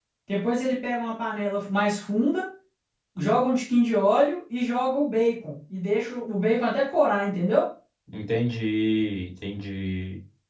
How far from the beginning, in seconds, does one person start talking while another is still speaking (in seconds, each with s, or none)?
none